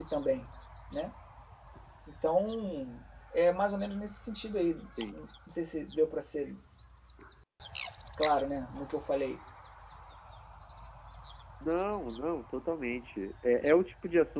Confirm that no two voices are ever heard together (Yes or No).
Yes